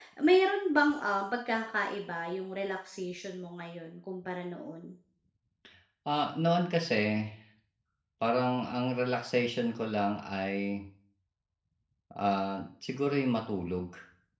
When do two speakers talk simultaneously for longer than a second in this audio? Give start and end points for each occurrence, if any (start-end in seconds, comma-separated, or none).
none